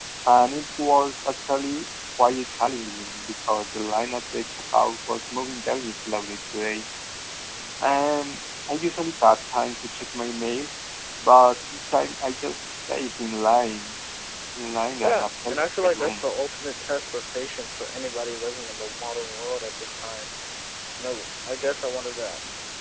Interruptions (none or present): present